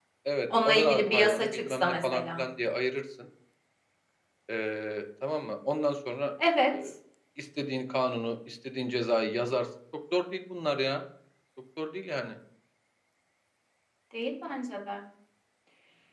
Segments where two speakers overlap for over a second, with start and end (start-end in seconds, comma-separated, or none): 0.6-2.4